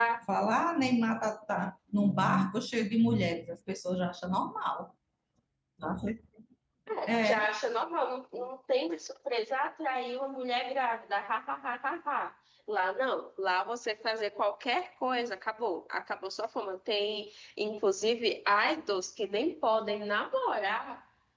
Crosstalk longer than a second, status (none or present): none